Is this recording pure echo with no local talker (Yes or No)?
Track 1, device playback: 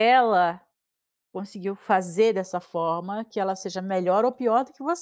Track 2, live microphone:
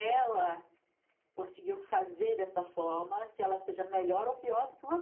Yes